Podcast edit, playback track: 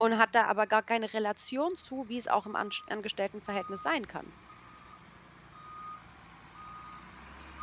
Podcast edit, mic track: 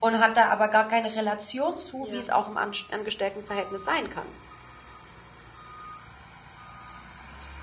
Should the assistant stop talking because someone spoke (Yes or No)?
Yes